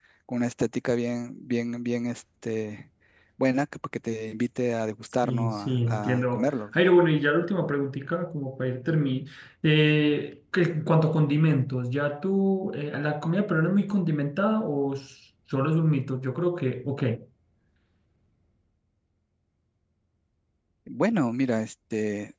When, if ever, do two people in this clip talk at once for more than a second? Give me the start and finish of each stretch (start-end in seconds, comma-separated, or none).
5.2-6.5